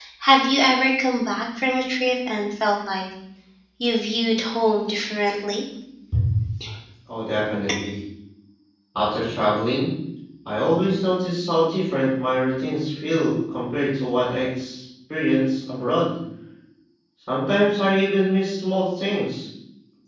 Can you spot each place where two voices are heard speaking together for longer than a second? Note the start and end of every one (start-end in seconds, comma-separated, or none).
none